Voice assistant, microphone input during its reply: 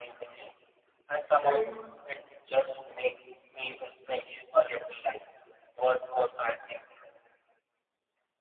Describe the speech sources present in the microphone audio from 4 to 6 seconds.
echo only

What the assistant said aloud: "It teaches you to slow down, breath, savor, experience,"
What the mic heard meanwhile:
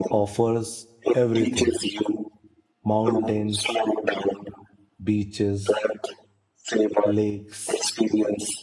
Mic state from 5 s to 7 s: both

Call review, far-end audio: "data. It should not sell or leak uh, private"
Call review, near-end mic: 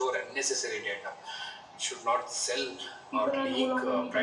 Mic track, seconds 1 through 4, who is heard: both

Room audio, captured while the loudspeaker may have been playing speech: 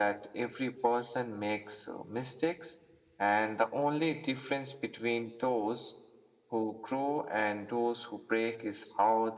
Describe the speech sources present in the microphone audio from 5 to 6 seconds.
echo only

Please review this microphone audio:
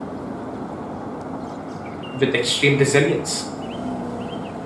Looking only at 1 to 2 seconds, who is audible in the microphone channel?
neither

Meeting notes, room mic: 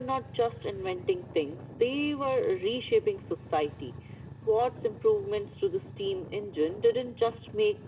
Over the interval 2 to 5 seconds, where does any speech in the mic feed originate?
echo only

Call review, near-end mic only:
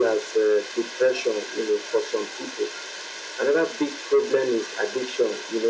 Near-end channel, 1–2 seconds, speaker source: echo only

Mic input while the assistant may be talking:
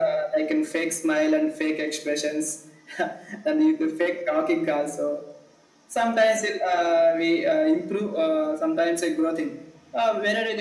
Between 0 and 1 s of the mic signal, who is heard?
echo only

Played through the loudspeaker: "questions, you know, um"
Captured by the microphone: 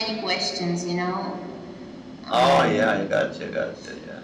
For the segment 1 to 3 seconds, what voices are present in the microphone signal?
both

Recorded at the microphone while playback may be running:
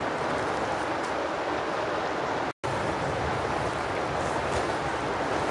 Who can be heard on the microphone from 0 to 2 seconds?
neither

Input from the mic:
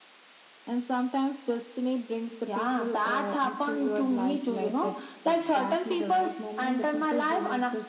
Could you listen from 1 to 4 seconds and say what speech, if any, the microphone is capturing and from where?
echo only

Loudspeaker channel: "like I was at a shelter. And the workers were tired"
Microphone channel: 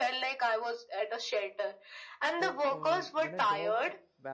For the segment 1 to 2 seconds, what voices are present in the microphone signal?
echo only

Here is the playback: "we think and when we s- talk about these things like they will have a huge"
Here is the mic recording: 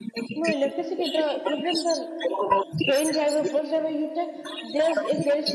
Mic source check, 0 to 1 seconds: both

